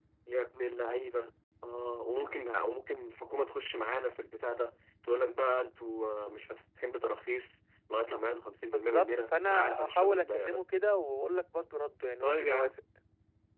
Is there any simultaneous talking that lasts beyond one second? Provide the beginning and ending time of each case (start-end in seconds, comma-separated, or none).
8.7-10.6